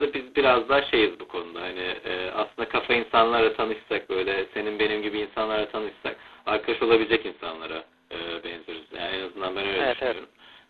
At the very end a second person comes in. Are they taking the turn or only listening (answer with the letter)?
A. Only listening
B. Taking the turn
A